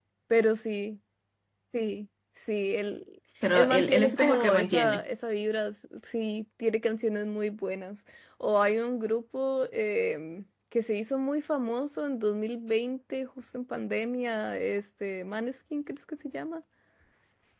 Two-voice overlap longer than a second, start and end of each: 3.5-5.0

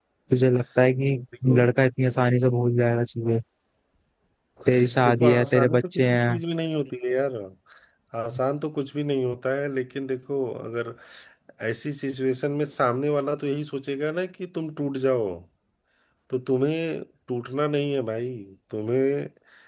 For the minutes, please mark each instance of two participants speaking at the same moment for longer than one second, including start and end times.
5.0-6.4

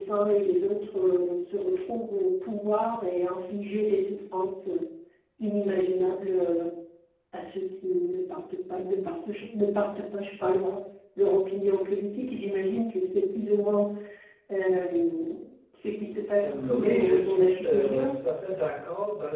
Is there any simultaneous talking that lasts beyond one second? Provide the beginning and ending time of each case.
16.4-18.2

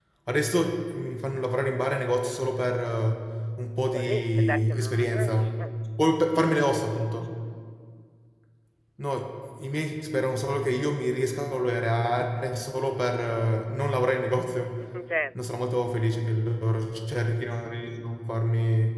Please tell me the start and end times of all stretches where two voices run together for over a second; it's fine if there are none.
3.9-5.4

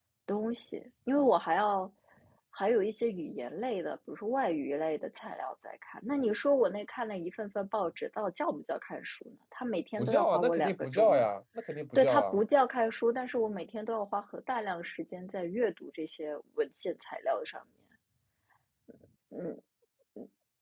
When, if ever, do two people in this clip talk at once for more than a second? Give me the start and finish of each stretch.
10.0-11.2

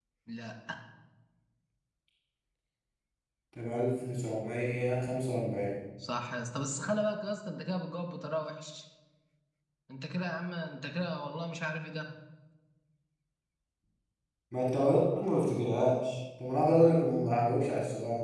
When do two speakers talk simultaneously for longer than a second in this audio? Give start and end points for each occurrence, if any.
none

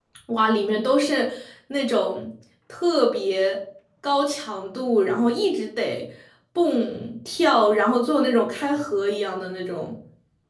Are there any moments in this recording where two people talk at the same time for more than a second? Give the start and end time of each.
none

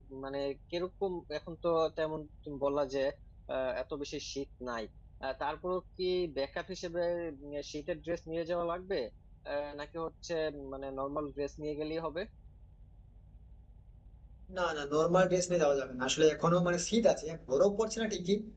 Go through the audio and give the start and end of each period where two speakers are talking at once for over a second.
none

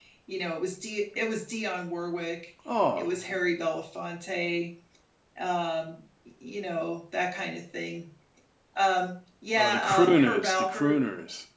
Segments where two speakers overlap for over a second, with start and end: 9.6-11.0

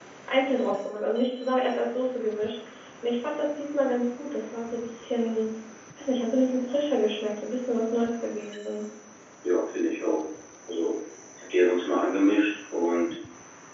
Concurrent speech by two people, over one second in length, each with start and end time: none

